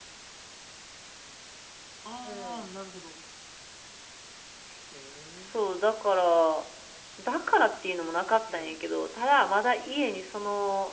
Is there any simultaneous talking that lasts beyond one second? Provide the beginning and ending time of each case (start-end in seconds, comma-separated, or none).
none